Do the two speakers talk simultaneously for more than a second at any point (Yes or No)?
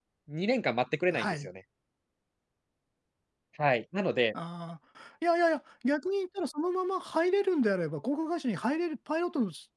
No